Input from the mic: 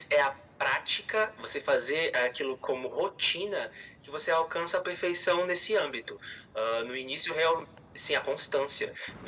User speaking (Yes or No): No